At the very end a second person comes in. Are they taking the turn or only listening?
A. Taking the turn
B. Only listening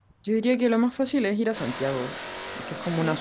B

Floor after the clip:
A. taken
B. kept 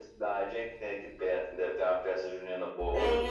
A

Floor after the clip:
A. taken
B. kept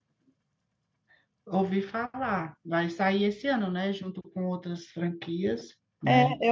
A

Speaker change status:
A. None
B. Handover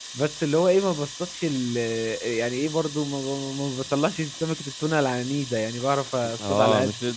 B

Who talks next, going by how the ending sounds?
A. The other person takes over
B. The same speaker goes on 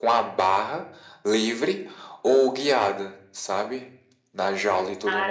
A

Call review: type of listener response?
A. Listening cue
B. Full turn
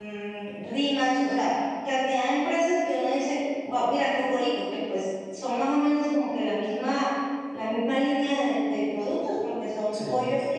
A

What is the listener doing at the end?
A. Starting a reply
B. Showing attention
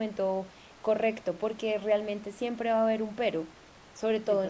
B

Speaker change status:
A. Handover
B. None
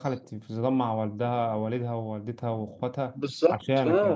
A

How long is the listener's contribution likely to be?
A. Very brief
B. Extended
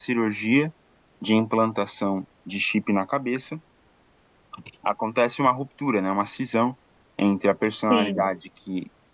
A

